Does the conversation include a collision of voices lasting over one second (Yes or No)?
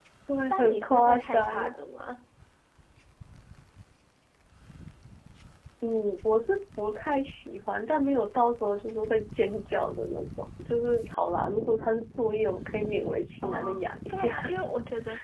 Yes